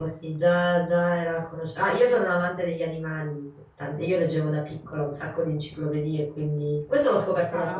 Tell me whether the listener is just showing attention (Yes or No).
Yes